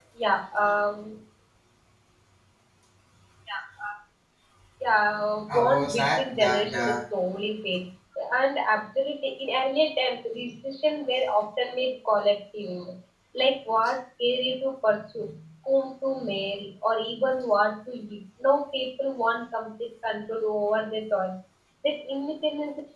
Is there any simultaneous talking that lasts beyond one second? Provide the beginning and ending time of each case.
5.5-7.0

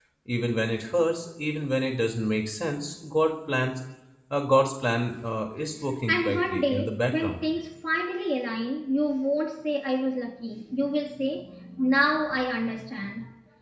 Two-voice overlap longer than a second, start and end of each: 6.1-7.4

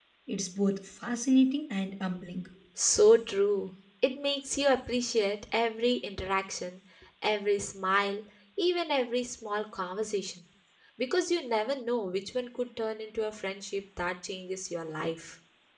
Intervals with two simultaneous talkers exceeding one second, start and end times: none

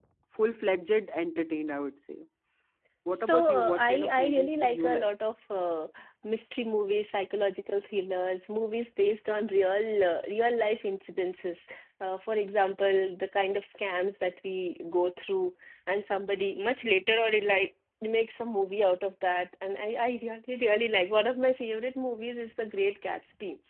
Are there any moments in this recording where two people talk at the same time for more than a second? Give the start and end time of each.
3.1-5.1

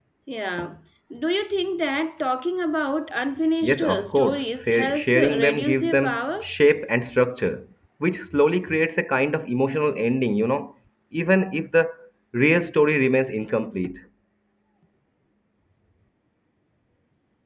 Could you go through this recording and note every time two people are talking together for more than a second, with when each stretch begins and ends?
3.6-6.6

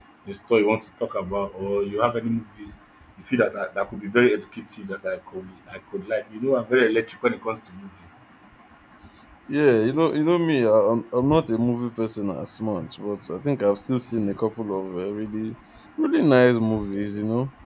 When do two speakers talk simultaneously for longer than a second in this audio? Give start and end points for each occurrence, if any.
none

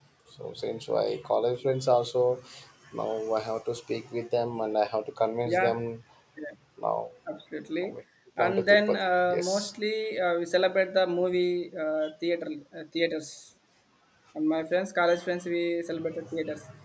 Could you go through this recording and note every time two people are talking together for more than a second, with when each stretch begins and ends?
8.4-9.7

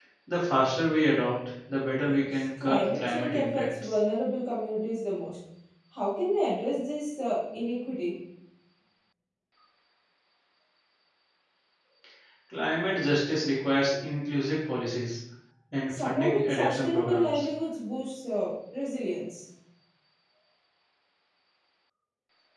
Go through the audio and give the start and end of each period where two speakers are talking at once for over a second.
2.0-3.9, 15.9-17.4

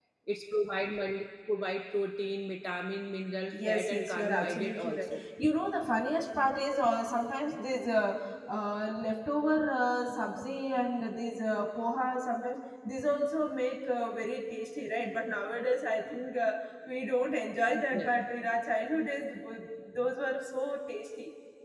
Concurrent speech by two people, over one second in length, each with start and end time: 3.5-5.1

